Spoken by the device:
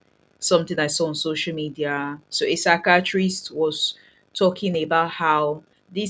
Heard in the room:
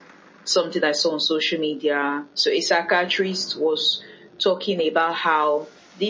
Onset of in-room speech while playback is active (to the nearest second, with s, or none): none